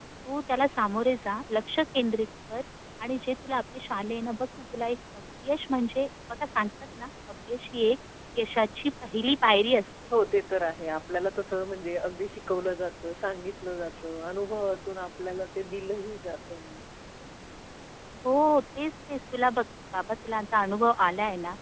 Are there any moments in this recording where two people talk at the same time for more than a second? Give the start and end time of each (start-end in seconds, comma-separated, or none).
none